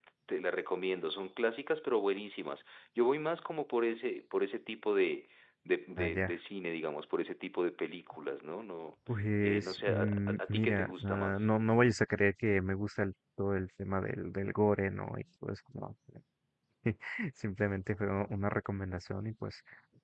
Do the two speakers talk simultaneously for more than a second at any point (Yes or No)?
Yes